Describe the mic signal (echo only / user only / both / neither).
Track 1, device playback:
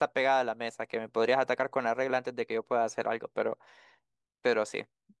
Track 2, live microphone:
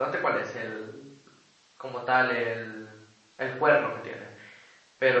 user only